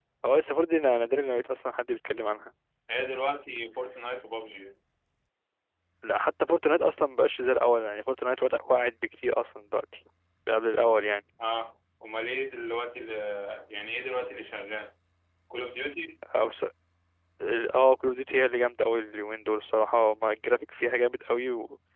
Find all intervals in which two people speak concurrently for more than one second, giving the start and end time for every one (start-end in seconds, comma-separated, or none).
none